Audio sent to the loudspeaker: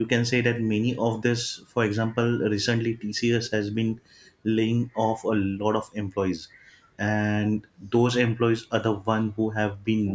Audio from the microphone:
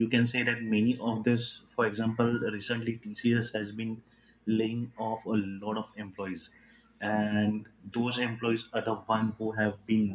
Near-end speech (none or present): none